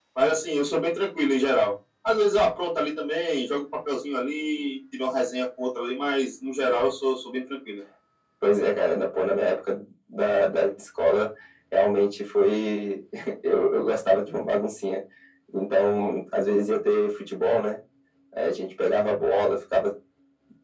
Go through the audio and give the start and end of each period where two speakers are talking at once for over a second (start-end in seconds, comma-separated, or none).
none